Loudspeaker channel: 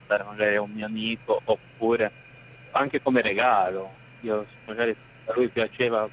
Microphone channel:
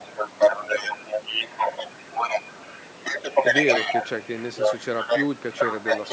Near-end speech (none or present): present